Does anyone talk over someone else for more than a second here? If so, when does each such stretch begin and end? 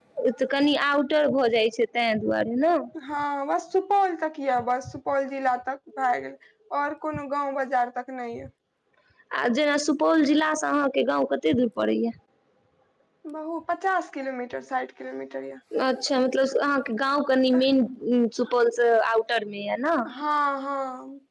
none

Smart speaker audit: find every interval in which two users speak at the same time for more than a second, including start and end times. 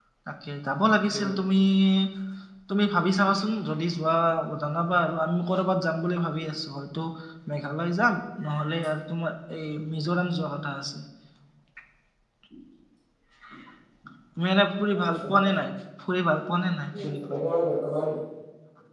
none

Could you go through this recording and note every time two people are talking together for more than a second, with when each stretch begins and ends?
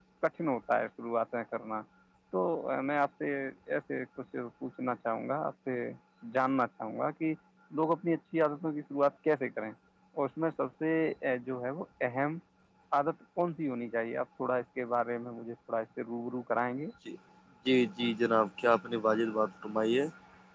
none

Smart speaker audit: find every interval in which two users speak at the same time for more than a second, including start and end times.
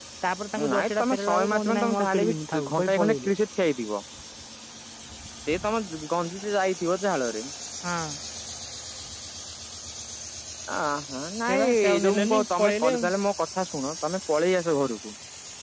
0.6-3.3, 11.5-13.1

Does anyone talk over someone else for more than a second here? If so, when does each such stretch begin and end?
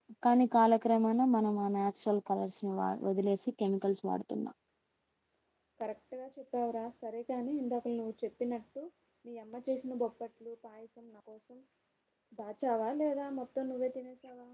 none

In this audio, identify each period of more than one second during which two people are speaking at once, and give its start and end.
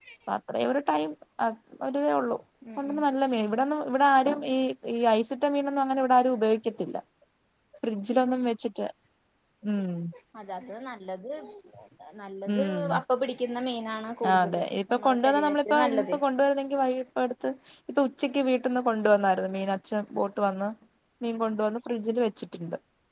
14.3-16.2

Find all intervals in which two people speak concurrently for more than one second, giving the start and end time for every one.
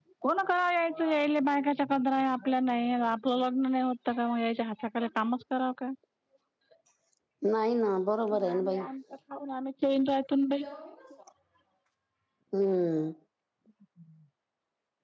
none

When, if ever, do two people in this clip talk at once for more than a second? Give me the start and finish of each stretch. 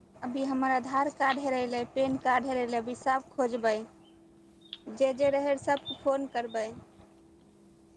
none

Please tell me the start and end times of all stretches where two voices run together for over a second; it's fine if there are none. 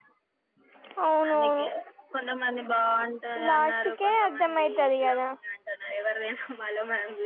3.5-5.1

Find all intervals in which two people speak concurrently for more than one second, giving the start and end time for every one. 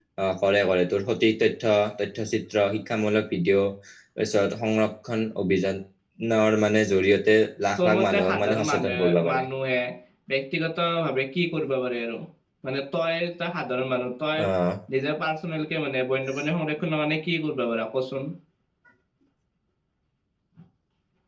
7.8-9.4

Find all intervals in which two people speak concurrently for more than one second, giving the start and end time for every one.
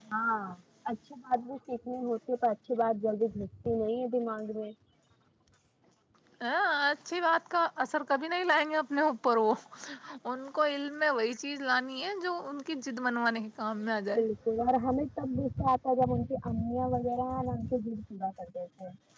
none

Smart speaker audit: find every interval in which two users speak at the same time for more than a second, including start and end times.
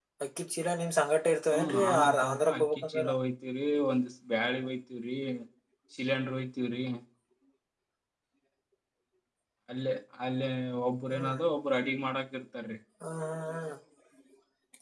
1.5-3.1

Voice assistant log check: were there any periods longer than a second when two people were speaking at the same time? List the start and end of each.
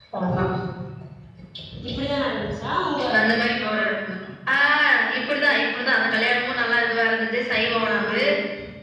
none

